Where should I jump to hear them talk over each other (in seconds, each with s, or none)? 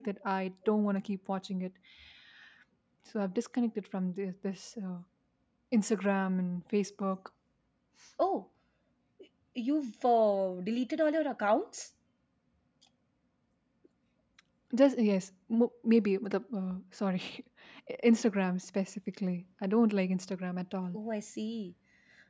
none